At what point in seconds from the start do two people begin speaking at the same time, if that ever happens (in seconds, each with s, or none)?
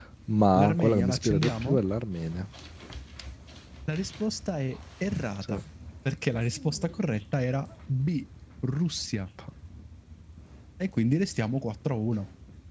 0.6 s